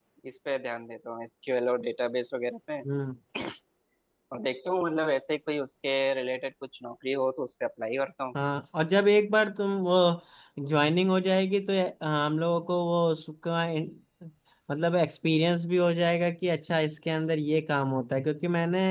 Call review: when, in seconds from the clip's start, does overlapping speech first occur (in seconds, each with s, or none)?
none